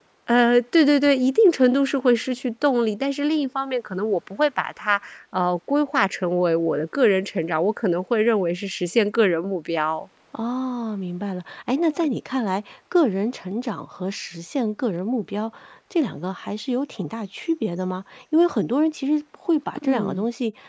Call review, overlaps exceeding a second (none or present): none